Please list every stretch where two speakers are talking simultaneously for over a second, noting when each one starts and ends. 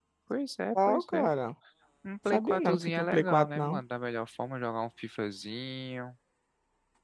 2.3-3.8

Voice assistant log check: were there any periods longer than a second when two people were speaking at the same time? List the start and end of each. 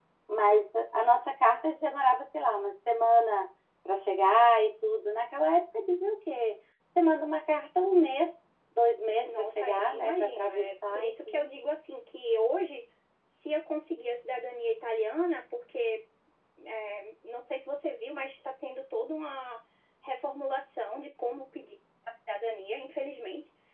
9.2-11.4

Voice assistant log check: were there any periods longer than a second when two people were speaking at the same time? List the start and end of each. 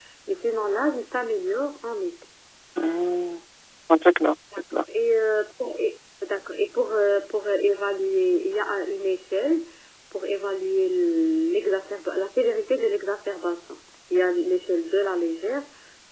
none

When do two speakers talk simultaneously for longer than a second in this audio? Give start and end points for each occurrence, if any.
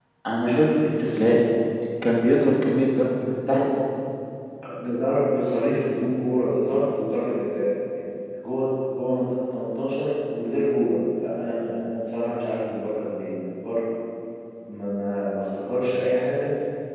none

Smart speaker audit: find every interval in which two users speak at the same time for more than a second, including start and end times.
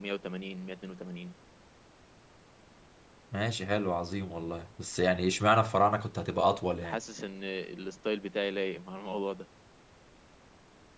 none

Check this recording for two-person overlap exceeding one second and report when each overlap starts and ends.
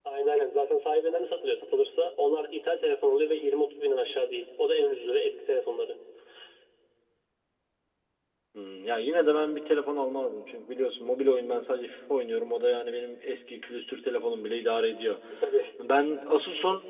none

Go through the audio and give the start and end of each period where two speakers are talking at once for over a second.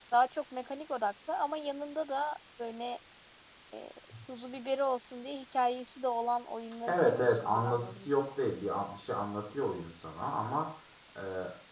6.9-8.1

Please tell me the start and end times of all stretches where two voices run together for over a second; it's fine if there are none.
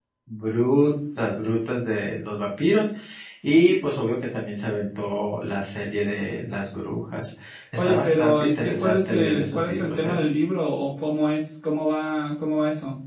7.8-10.2

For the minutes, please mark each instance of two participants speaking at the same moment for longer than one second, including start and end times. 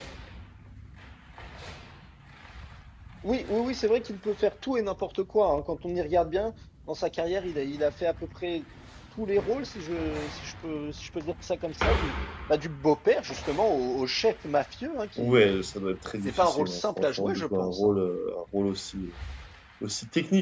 16.2-17.9

